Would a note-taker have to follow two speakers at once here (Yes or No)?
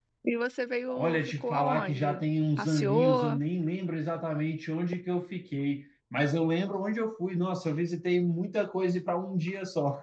Yes